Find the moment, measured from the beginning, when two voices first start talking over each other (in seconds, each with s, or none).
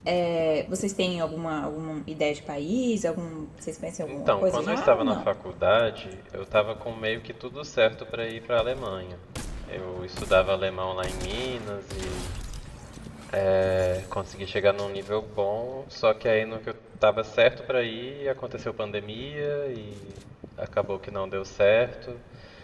4.0 s